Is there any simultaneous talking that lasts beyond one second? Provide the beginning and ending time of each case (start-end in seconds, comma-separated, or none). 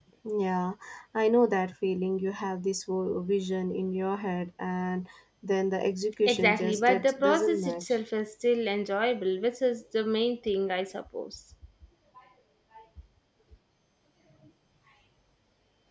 6.3-7.8